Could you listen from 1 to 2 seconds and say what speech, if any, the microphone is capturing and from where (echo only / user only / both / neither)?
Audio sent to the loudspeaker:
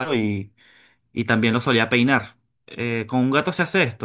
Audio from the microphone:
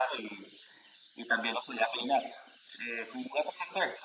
echo only